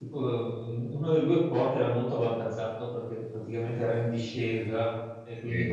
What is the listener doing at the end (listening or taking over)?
listening